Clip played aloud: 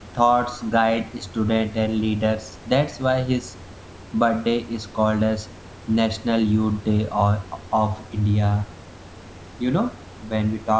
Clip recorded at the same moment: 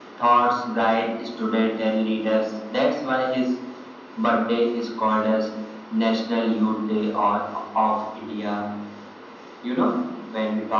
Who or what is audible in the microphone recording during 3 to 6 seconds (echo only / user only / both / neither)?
echo only